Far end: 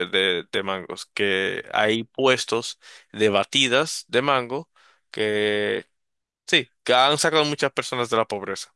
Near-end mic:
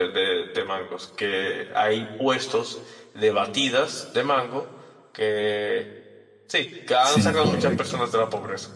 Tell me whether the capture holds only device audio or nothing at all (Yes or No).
No